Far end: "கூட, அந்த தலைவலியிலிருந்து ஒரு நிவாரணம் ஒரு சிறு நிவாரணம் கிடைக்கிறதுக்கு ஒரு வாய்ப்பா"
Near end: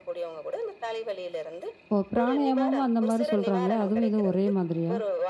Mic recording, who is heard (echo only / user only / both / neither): both